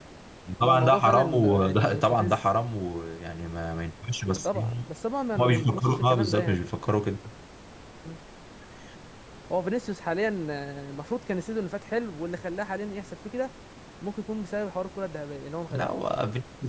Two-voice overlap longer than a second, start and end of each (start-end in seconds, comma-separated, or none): 0.6-2.4, 5.4-6.6